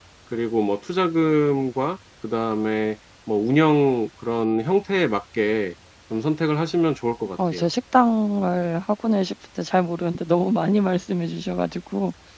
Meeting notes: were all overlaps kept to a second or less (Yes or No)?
Yes